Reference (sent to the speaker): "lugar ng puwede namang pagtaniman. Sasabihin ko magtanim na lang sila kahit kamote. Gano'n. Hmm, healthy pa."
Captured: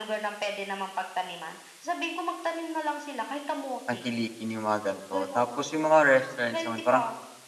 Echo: present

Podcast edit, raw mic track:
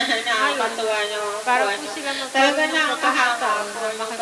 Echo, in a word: present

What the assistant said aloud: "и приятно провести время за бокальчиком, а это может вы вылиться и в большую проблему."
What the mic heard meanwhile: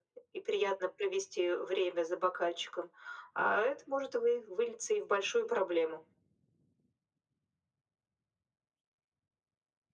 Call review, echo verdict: present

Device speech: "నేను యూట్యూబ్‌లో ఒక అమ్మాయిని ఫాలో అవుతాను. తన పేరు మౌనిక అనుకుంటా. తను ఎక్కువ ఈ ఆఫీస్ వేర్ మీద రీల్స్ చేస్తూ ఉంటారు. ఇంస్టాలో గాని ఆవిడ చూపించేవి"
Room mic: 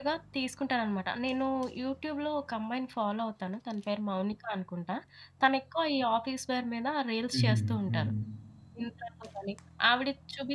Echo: present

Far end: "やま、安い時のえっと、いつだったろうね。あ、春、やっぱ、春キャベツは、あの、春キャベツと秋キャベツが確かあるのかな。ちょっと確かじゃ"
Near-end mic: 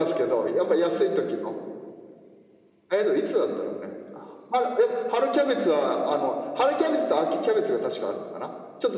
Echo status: present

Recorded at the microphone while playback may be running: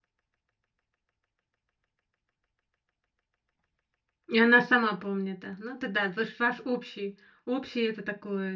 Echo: none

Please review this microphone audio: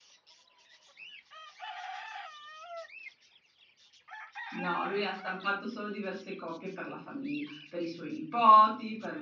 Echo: none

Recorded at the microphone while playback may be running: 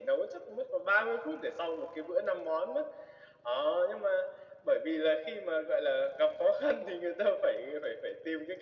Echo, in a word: present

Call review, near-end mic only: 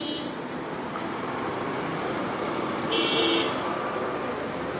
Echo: none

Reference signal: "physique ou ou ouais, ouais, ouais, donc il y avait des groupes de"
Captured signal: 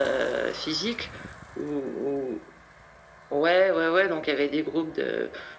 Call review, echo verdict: present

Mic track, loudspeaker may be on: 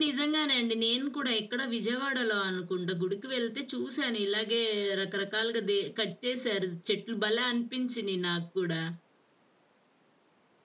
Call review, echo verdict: none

